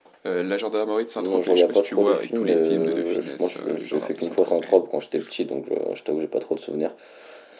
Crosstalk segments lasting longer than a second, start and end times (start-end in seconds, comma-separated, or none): 1.2-4.8